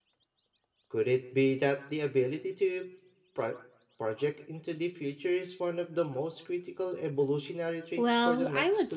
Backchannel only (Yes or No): No